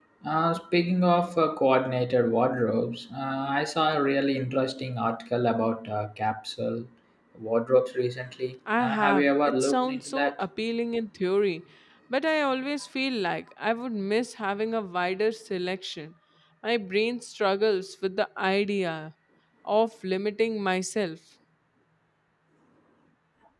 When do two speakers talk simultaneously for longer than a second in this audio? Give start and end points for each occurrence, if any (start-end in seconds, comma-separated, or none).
8.8-10.3